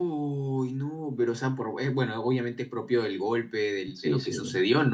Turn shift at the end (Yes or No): No